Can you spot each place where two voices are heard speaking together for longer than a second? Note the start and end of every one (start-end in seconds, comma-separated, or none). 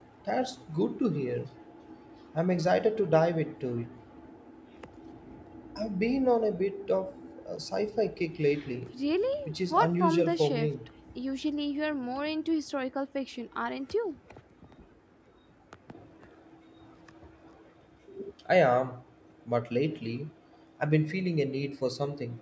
9.5-10.7